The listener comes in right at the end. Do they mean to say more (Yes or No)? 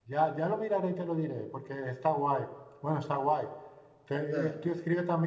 No